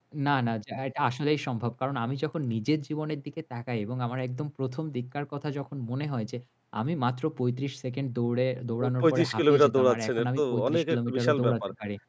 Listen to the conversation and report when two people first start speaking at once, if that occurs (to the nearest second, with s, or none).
9 s